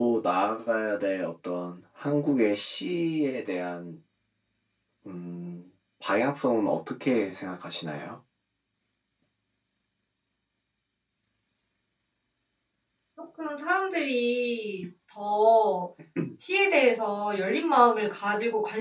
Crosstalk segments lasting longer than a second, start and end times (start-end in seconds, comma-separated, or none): none